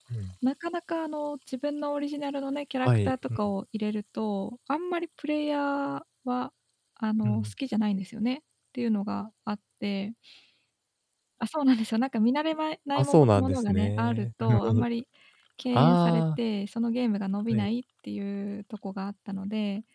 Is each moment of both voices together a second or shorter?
No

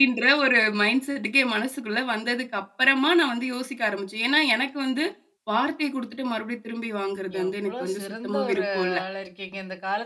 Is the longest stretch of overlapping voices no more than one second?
No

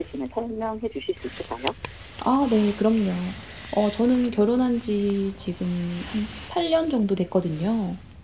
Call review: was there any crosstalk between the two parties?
No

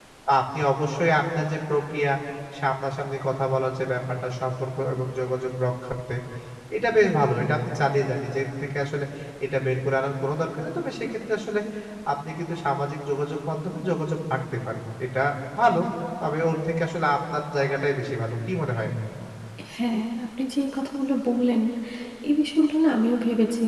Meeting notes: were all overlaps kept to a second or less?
Yes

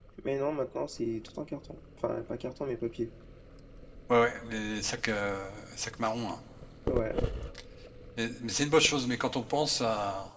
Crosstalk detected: No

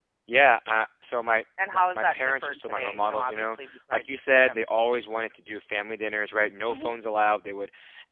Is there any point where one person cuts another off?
Yes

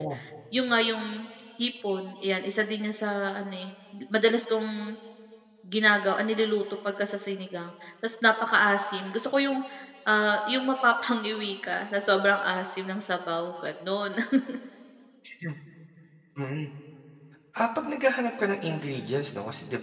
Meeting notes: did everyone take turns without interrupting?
Yes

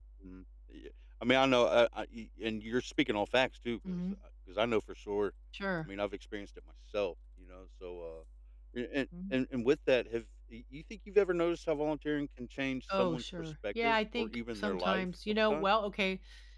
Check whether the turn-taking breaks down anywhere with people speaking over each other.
Yes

